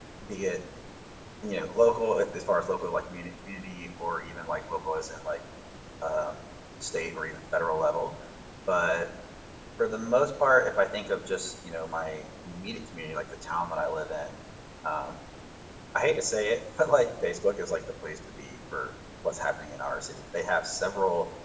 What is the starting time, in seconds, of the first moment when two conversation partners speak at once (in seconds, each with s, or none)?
none